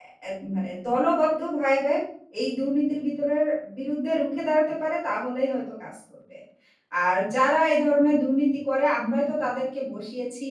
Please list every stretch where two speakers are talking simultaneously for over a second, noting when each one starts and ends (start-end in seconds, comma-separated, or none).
none